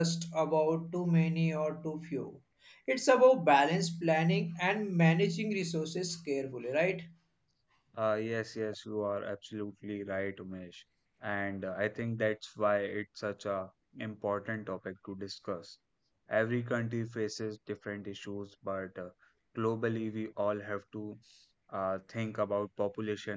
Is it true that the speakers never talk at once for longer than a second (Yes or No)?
Yes